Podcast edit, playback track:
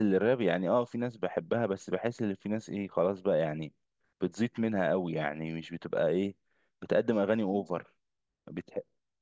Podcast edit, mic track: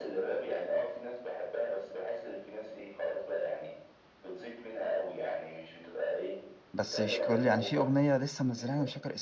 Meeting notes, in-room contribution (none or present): present